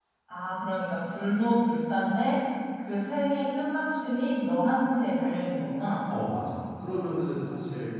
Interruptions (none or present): none